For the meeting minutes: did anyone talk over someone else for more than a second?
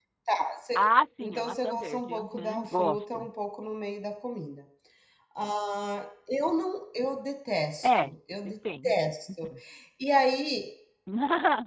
Yes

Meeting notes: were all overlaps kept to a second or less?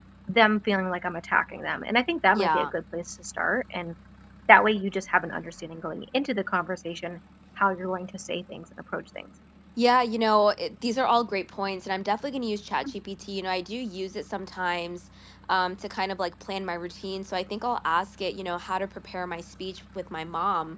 Yes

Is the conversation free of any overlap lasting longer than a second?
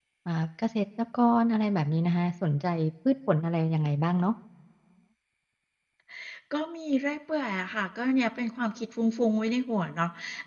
Yes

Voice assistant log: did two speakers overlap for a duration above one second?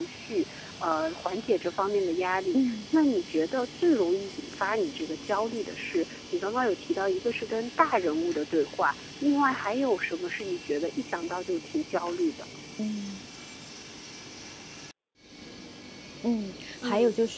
No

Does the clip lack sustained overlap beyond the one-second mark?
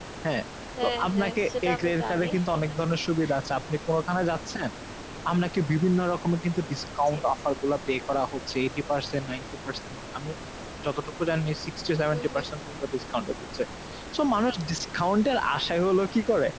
No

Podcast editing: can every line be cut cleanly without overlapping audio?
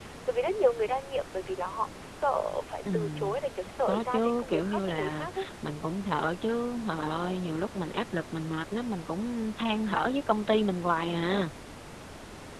No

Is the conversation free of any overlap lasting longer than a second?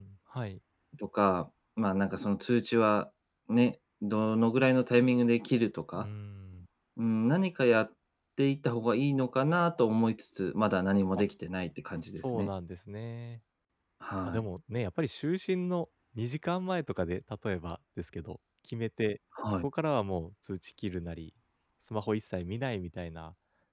Yes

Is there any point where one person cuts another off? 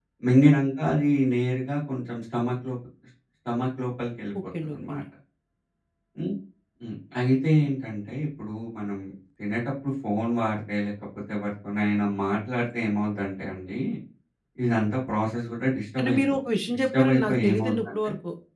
Yes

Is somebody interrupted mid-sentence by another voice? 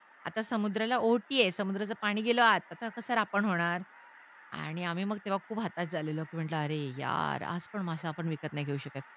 No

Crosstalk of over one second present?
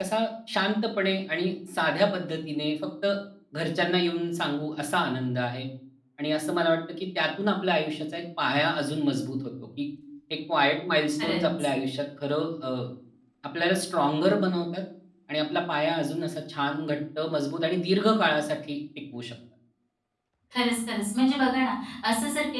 No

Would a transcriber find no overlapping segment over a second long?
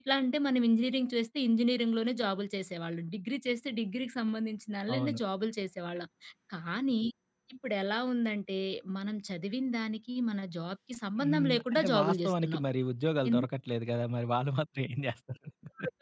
No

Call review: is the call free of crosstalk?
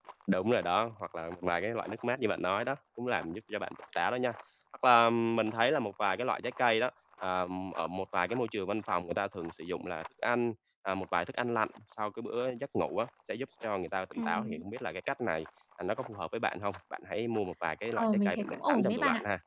No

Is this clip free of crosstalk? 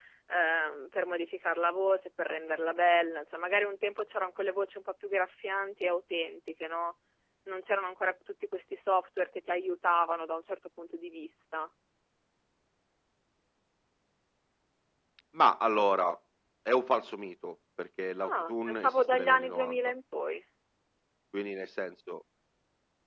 No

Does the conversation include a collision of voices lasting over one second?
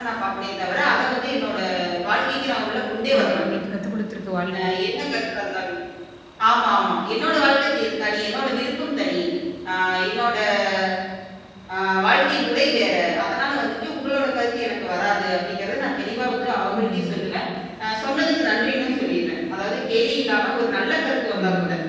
No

